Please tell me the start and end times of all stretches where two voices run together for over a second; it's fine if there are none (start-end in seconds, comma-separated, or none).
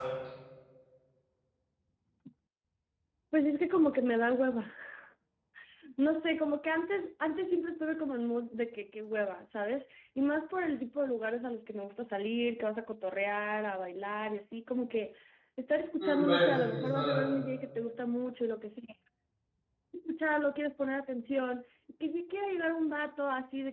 16.0-17.3